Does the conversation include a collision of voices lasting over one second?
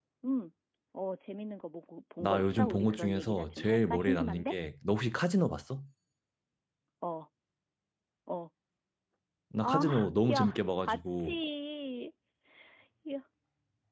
Yes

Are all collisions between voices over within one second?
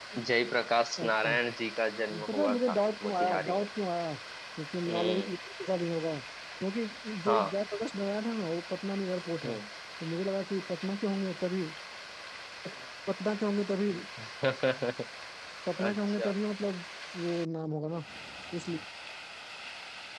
No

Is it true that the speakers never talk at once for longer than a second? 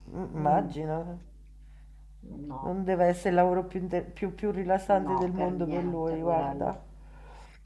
No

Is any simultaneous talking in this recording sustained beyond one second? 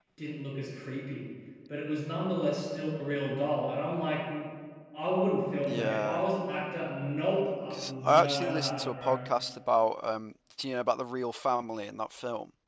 Yes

